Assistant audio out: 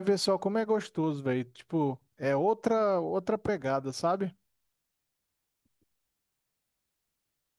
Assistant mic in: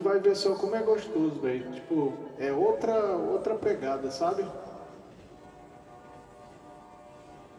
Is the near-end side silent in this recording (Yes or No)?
Yes